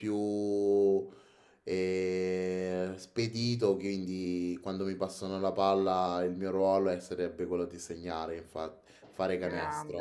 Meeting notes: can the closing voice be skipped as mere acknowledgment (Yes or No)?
No